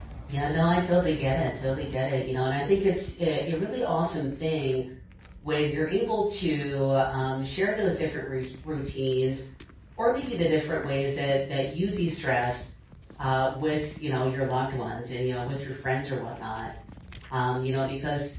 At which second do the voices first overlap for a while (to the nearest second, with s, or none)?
none